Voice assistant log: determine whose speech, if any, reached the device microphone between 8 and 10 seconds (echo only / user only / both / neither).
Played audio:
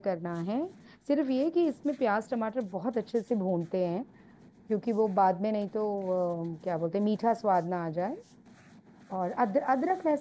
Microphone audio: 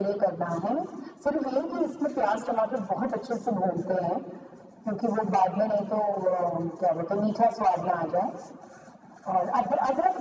echo only